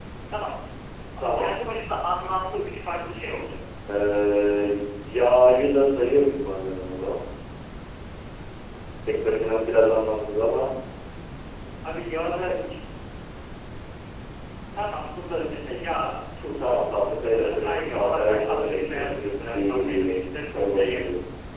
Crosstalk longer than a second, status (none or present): present